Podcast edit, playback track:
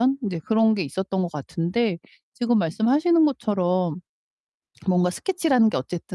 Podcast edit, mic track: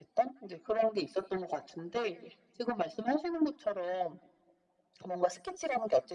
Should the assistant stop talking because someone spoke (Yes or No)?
No